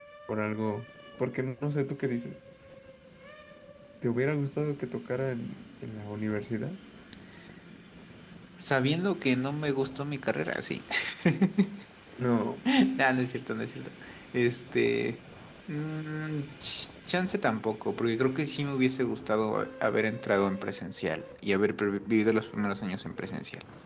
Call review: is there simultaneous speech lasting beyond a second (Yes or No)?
No